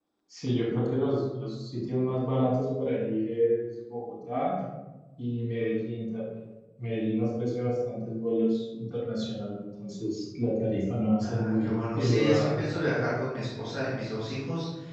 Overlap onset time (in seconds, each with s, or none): 11.2 s